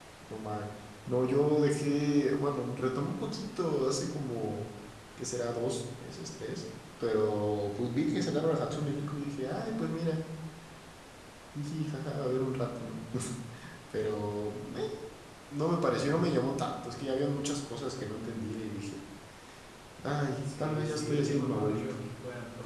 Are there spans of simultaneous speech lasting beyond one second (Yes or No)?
Yes